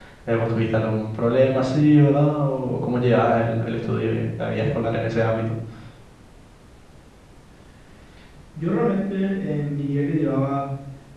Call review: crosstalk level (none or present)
none